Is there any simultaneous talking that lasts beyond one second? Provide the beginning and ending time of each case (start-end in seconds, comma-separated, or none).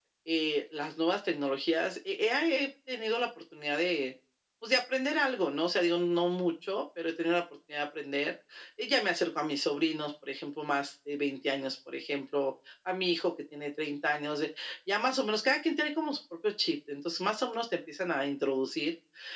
none